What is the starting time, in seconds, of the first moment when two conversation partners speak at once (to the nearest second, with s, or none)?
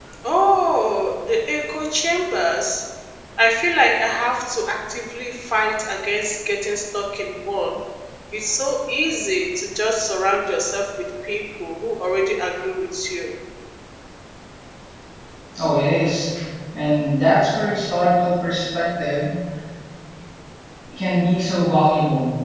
none